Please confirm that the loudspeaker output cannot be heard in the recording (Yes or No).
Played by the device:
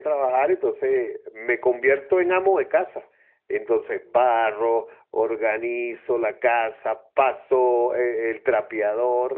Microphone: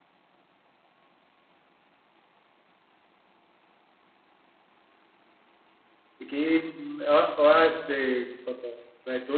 Yes